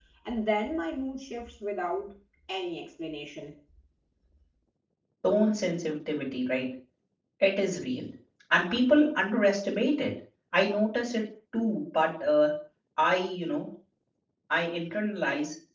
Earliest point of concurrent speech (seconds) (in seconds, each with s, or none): none